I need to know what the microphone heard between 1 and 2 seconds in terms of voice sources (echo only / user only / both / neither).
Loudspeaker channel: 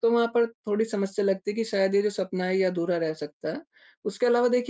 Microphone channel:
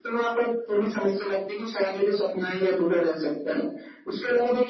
echo only